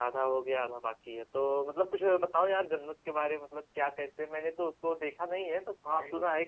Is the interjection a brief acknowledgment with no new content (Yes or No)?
Yes